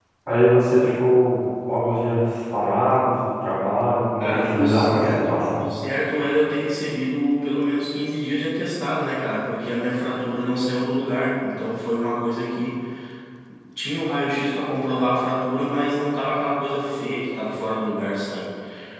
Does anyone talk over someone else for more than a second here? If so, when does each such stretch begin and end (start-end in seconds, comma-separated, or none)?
4.2-5.7